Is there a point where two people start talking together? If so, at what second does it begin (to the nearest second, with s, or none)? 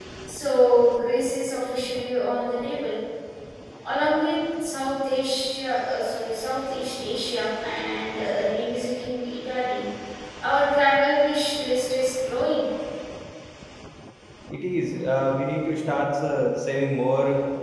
none